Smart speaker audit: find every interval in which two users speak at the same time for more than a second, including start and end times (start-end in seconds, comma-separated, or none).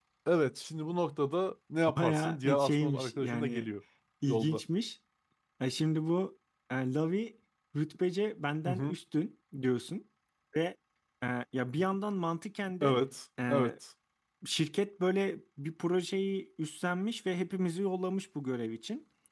2.0-3.7